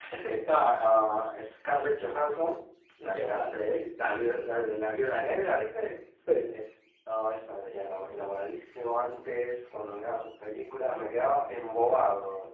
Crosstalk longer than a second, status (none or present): present